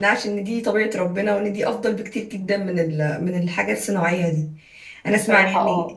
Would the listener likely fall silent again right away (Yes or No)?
Yes